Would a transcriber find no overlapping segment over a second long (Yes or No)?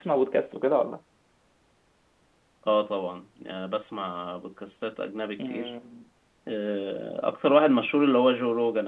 Yes